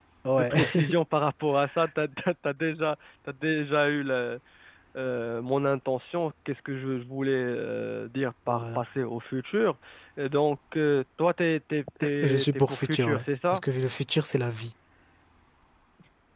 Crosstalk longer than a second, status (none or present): present